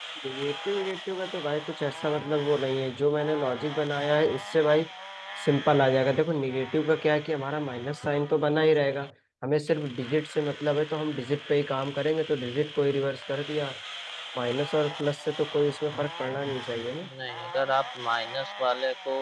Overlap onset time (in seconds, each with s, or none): none